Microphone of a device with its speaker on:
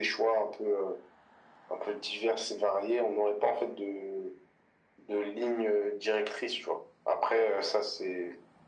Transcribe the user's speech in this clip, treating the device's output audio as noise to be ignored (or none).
none